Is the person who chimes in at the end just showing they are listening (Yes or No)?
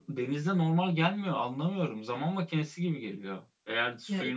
Yes